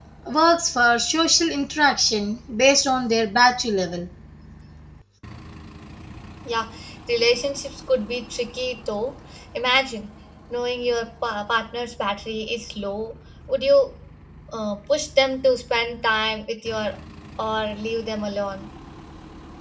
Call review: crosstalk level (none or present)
none